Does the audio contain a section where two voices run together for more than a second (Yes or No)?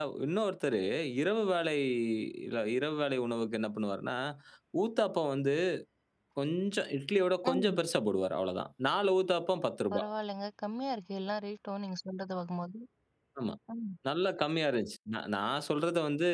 No